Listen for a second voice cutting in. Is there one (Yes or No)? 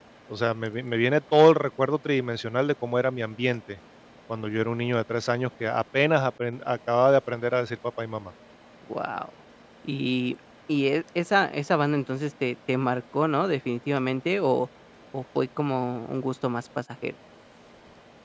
No